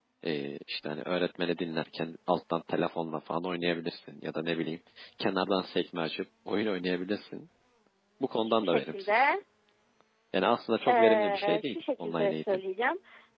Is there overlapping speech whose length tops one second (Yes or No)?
Yes